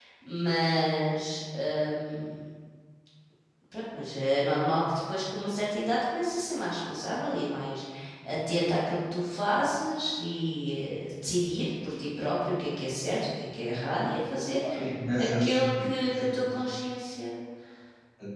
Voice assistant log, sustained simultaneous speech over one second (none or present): present